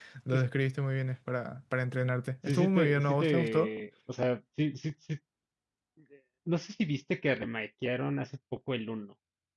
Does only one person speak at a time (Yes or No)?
No